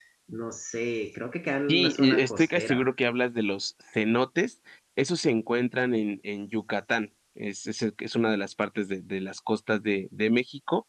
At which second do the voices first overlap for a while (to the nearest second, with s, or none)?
2 s